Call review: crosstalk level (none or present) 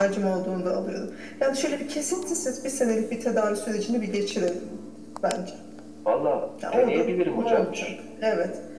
present